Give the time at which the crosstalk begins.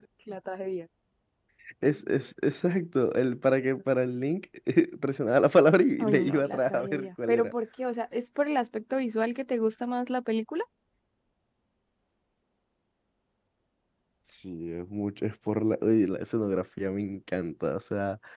6.0 s

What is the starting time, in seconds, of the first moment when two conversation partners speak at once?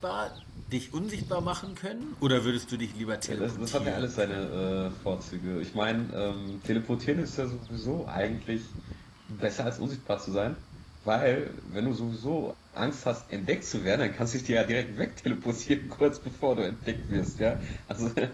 3.2 s

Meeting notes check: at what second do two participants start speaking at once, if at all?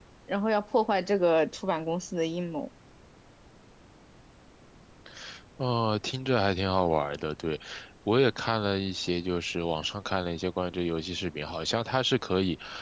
none

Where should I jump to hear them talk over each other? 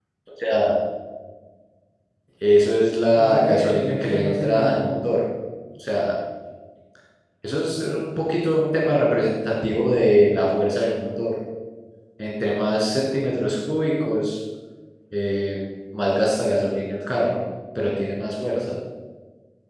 3.1 s

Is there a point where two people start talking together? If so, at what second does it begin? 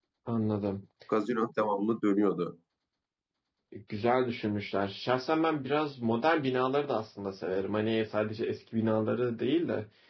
none

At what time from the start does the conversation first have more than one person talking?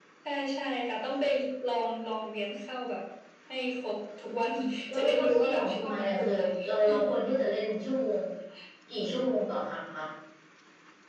4.9 s

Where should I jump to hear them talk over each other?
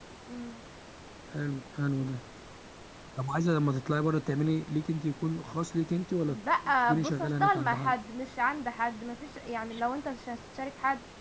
6.3 s

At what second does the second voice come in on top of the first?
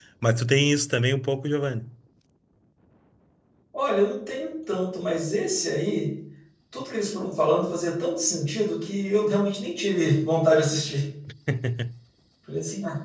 none

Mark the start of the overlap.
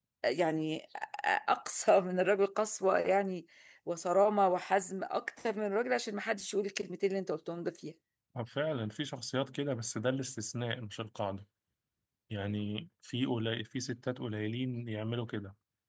none

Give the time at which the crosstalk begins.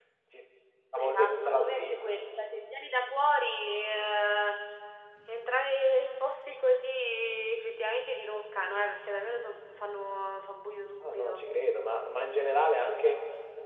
1.0 s

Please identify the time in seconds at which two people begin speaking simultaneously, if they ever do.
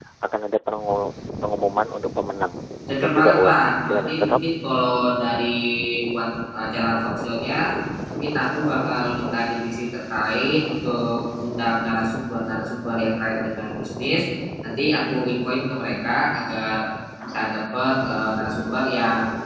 3.0 s

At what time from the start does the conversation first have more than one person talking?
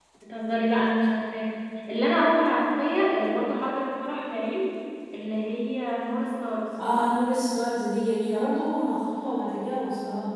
none

